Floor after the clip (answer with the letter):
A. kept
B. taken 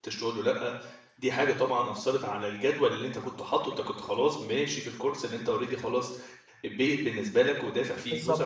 A